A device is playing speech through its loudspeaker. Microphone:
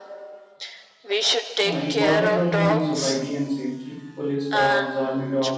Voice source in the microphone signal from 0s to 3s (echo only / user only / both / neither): both